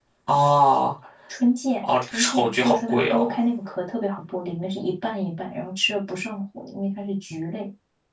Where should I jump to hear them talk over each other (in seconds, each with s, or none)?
1.8 s